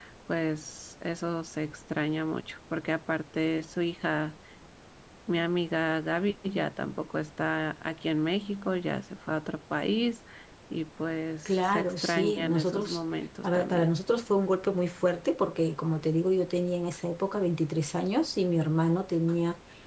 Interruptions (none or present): present